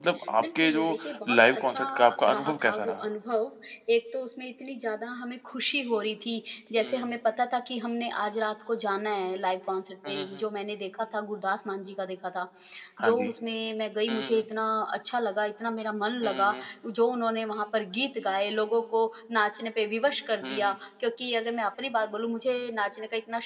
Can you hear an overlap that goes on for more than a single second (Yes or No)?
Yes